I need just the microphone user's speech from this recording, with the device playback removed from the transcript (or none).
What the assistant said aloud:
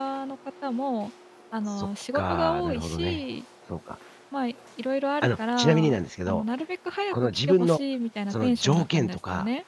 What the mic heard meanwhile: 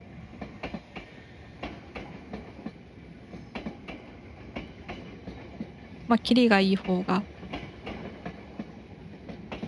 ま、あ、キリがいい方が